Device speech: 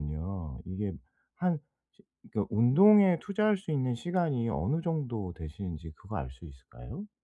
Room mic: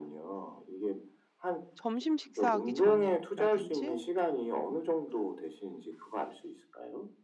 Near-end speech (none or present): present